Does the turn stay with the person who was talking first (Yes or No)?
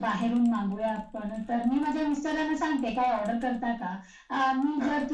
Yes